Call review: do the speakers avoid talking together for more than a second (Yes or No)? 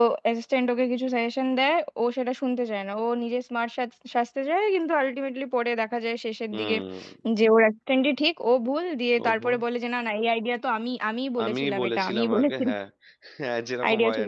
No